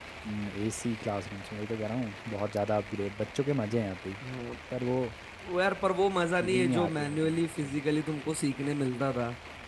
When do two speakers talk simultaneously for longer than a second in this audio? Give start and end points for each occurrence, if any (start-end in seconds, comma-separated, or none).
6.4-7.8